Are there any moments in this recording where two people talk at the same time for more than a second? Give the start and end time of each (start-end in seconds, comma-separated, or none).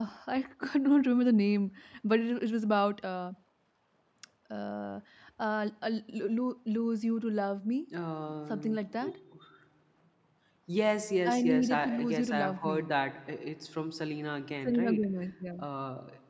11.3-12.9